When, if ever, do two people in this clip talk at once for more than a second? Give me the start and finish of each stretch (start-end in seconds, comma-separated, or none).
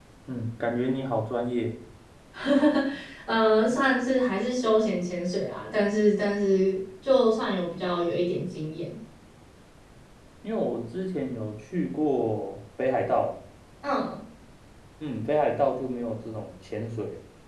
none